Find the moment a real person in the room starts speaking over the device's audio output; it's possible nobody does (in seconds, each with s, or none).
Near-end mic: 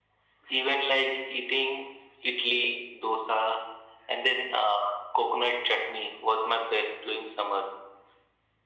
none